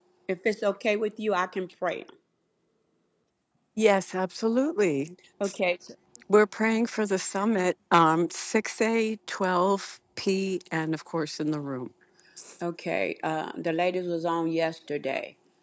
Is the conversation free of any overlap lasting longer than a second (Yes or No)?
Yes